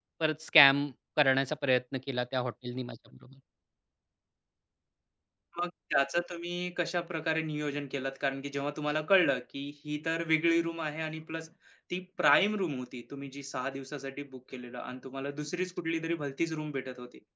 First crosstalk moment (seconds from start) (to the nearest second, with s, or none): none